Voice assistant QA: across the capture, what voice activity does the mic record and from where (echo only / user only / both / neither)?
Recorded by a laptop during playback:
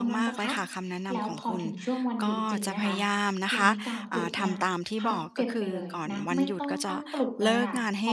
both